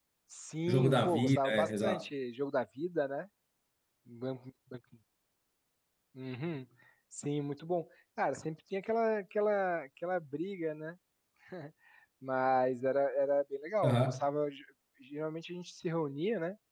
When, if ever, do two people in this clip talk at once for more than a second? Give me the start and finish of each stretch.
0.7-2.0

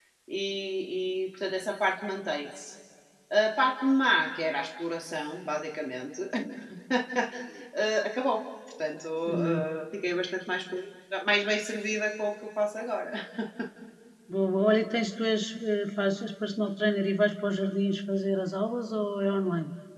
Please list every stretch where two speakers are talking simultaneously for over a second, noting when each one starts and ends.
none

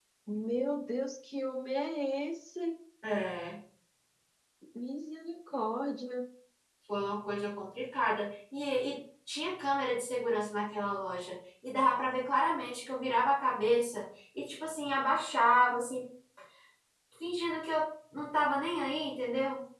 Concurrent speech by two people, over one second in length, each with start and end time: none

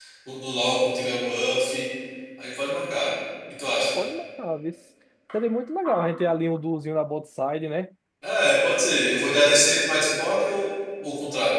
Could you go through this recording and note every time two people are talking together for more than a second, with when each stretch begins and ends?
none

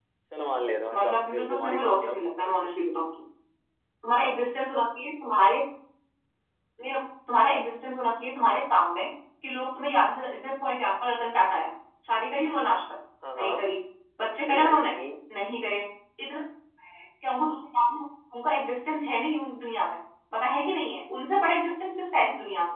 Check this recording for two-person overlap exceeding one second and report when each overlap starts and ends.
0.9-2.5

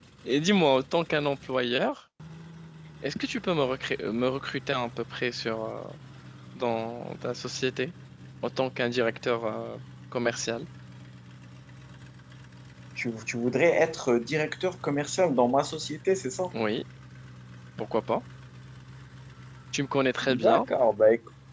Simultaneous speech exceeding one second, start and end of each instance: none

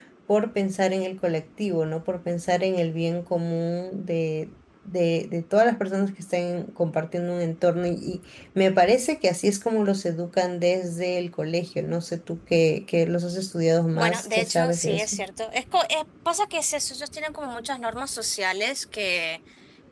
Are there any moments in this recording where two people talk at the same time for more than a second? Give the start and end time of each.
13.9-15.2

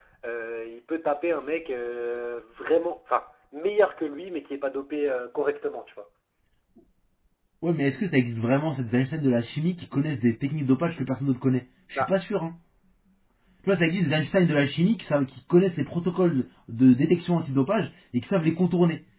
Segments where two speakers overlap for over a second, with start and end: none

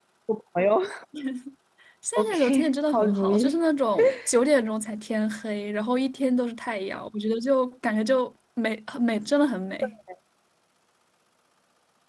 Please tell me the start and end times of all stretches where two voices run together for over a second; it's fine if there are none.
2.2-3.6

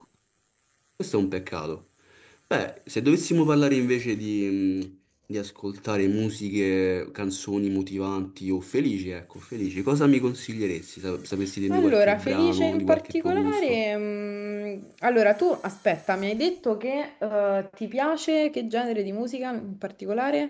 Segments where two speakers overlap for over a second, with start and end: 11.7-13.8

